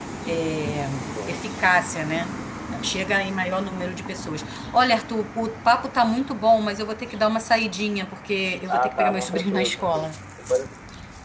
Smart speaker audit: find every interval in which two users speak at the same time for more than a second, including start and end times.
8.7-10.1

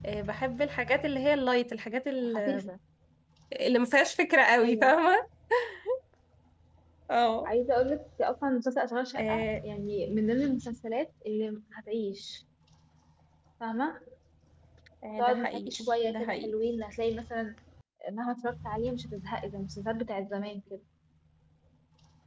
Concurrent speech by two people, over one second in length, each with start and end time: 15.1-16.5

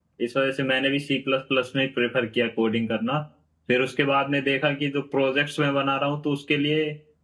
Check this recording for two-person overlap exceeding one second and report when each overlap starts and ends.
none

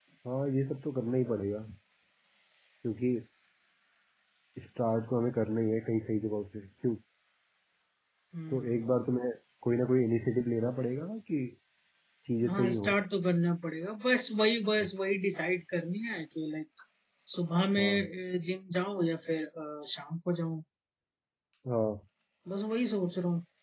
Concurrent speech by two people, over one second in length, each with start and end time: none

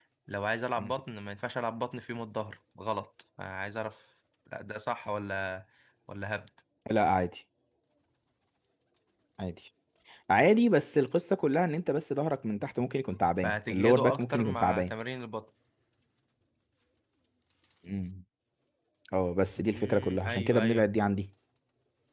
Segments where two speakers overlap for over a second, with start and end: 13.4-14.9, 19.6-20.9

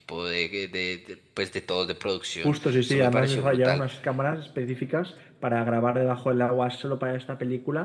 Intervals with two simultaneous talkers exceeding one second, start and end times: 2.4-3.8

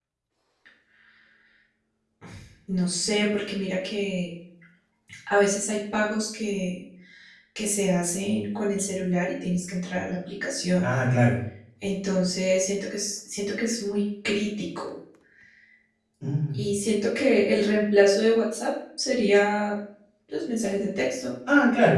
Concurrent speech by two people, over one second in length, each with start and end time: none

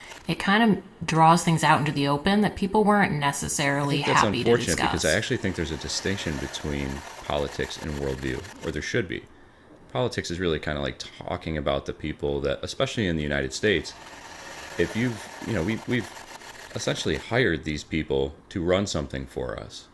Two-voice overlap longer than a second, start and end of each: 3.8-5.2

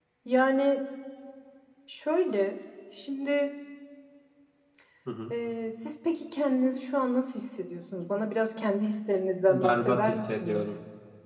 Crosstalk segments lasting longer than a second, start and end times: 9.5-10.7

